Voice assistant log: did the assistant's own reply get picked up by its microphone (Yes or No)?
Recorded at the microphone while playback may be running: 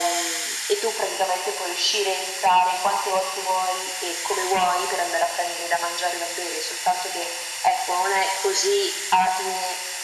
Yes